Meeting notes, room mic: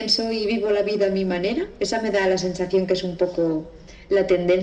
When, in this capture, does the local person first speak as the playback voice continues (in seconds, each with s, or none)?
none